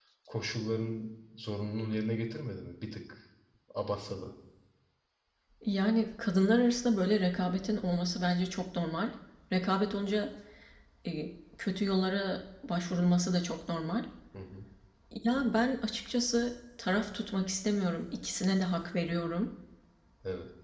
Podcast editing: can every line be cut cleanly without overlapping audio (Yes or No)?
Yes